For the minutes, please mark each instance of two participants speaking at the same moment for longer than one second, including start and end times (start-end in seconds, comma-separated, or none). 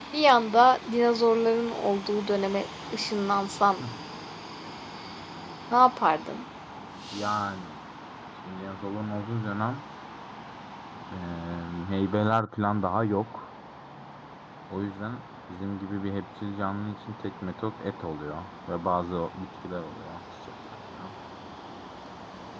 none